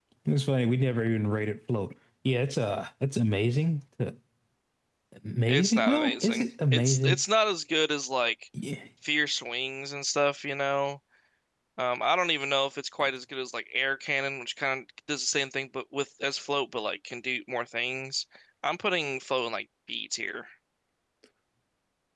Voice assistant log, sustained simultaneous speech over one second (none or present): present